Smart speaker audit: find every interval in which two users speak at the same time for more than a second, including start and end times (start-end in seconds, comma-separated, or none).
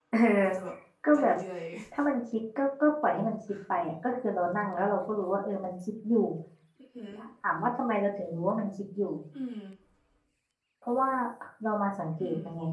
none